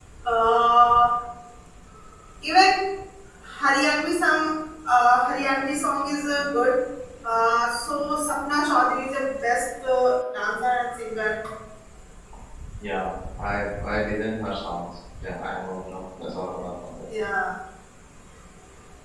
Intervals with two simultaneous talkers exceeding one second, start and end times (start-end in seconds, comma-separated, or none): none